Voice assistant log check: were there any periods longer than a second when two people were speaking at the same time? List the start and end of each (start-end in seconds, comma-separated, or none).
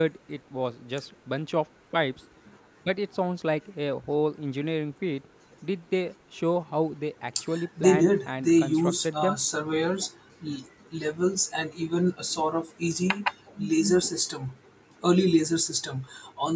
7.8-9.4